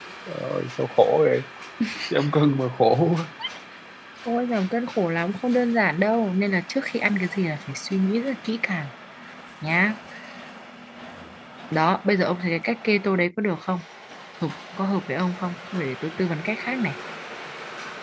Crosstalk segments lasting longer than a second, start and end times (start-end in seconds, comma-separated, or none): none